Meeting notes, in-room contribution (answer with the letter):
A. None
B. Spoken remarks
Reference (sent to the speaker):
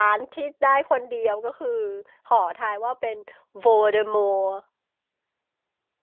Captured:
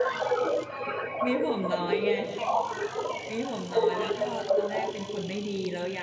B